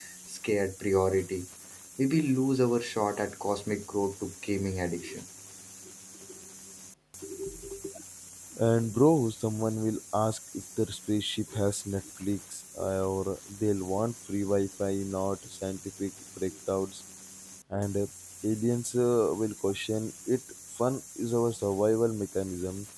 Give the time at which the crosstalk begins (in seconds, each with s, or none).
none